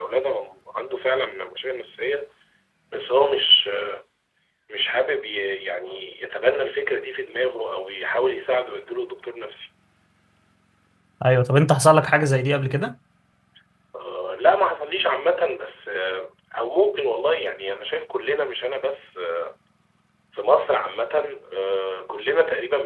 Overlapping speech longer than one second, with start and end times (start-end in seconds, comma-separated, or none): none